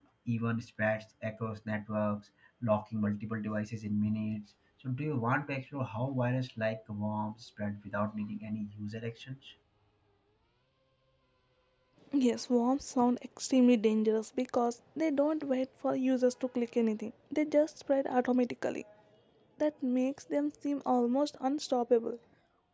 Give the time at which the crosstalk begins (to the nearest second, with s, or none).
none